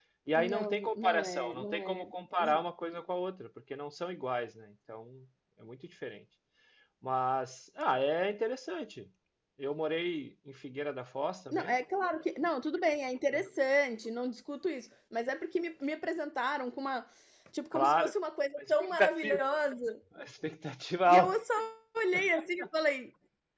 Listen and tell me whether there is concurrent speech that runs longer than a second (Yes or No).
Yes